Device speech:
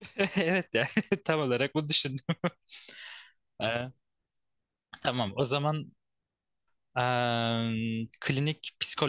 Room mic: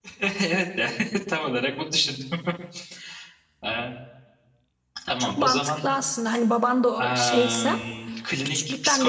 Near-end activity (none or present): present